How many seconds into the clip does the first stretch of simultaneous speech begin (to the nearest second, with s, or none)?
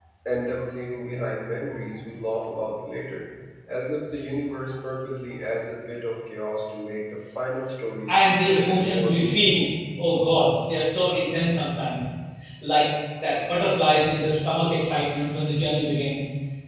8 s